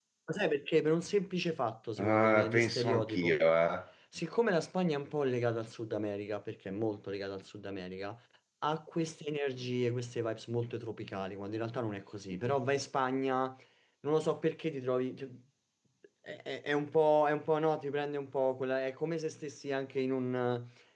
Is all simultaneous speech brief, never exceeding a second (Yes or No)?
No